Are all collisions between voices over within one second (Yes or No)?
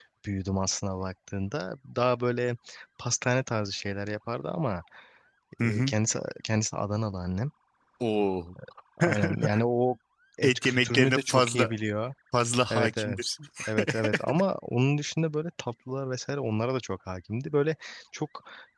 No